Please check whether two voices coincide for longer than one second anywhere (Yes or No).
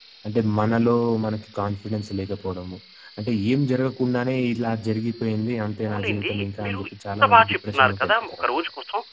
Yes